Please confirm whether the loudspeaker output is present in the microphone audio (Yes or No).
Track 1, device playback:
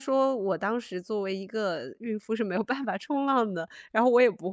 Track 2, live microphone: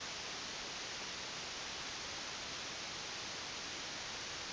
No